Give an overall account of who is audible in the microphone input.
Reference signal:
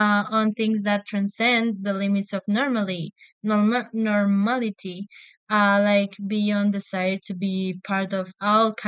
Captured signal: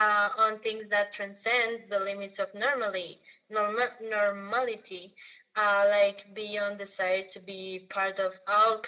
echo only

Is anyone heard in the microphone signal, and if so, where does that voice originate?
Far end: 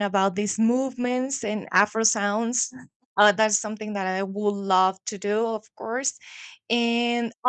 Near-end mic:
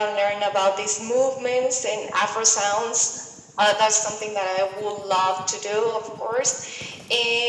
echo only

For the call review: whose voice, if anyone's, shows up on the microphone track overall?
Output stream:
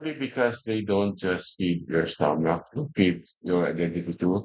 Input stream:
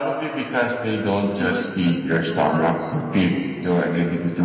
both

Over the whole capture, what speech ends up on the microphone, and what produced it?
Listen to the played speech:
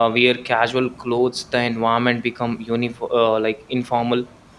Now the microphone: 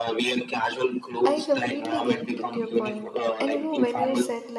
both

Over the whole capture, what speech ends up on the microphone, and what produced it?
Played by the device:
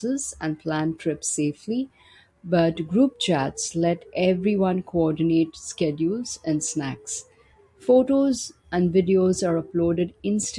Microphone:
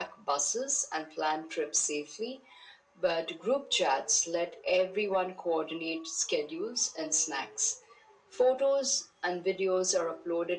echo only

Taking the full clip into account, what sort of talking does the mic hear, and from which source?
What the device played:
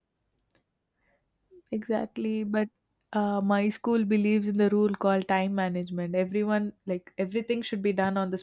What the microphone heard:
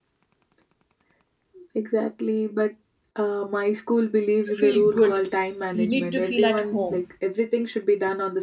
both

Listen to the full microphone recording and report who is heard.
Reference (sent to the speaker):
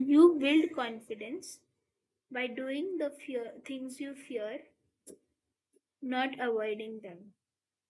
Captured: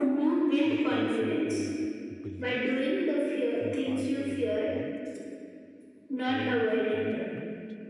both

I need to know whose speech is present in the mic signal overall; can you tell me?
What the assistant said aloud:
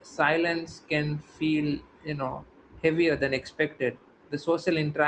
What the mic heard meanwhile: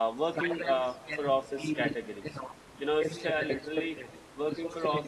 both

